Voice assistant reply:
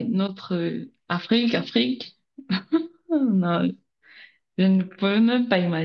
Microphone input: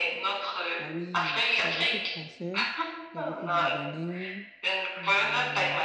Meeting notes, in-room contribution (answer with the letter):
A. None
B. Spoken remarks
B